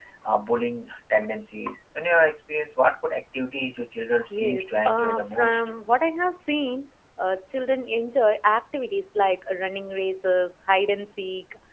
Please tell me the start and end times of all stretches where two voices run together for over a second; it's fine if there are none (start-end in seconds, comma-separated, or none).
4.3-5.6